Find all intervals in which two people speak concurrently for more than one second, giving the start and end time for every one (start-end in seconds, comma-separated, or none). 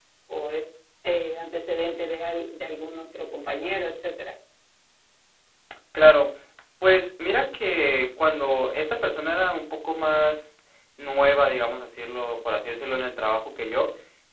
none